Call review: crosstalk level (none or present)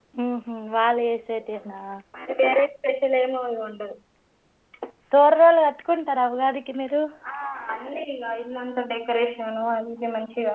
none